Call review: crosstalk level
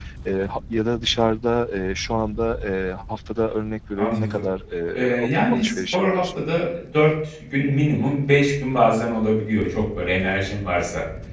present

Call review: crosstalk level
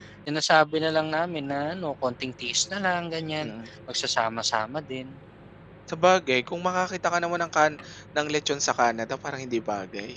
none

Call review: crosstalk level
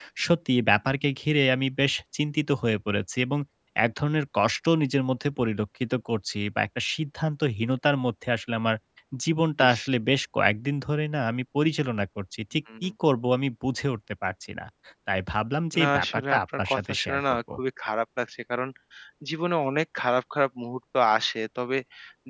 present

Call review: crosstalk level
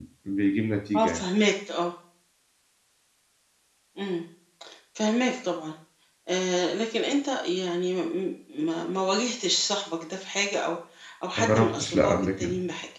present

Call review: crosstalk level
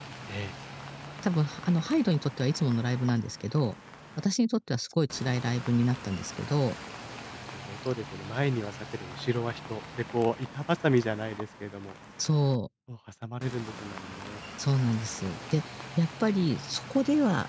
none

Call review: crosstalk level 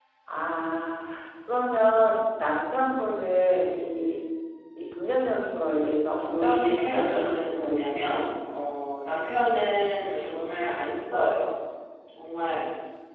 present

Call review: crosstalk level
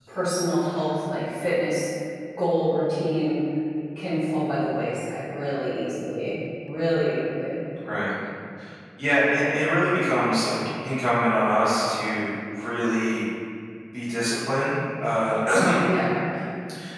none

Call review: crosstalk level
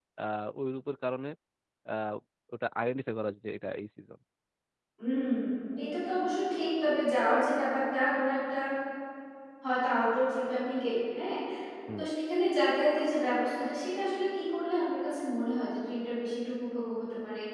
none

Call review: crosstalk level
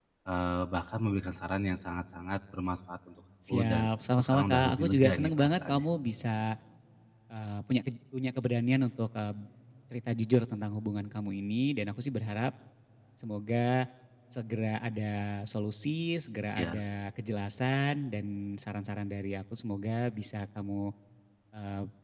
present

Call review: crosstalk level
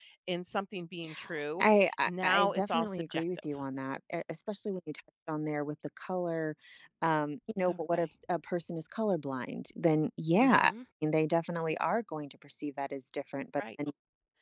present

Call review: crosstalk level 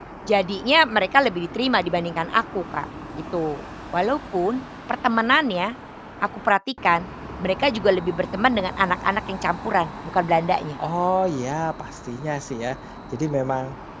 none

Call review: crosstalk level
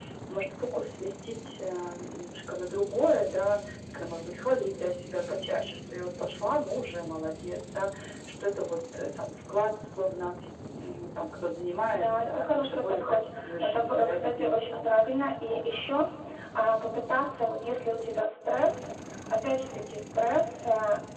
present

